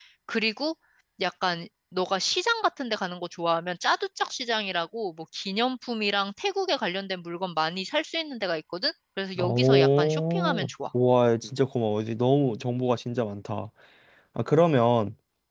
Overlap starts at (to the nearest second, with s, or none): 9 s